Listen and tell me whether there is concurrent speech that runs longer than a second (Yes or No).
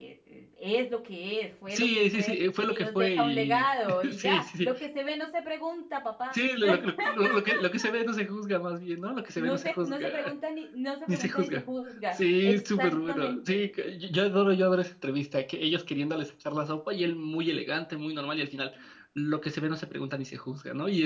Yes